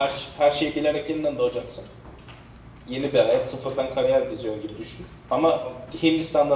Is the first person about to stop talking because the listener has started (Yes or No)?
No